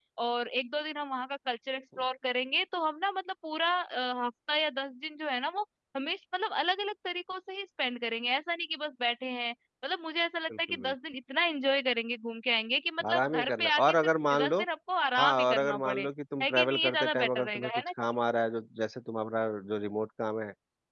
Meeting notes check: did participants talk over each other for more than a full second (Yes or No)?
Yes